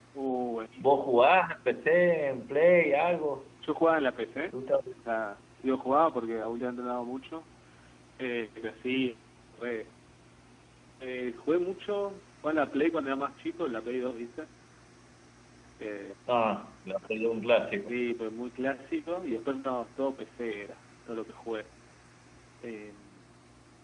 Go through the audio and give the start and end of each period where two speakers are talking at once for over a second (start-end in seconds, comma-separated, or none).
none